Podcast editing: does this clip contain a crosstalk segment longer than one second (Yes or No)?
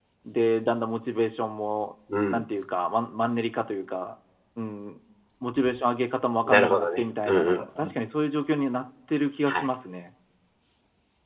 Yes